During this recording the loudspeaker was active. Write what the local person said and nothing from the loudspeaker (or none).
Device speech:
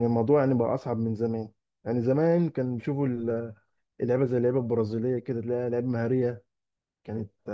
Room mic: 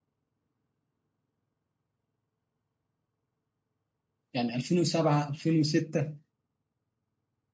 يعني 2007 2006